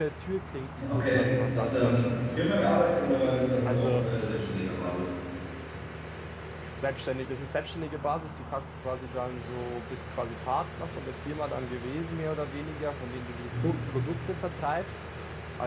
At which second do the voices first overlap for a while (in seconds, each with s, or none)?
0.9 s